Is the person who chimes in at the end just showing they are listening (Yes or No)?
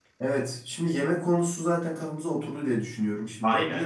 Yes